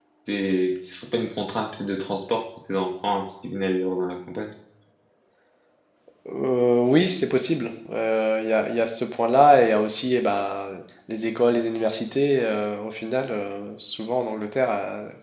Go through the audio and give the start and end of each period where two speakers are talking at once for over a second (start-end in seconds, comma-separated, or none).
none